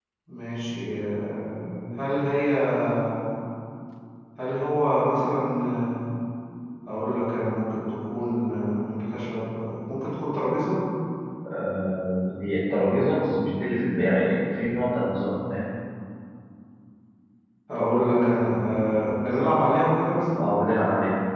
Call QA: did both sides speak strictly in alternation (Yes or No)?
Yes